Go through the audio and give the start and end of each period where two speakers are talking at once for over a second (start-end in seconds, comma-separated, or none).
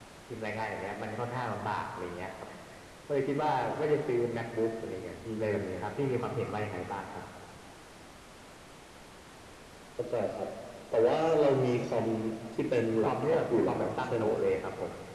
13.0-14.4